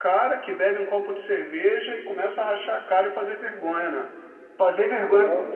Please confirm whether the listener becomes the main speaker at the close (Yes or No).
No